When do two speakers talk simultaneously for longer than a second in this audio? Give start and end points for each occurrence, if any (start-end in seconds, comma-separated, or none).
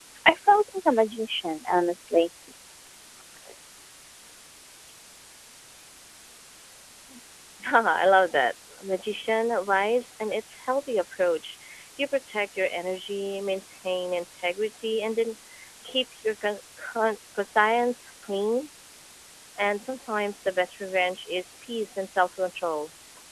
none